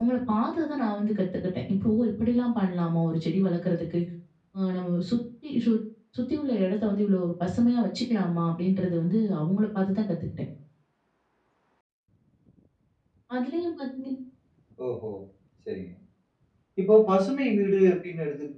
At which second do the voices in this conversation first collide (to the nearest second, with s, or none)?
none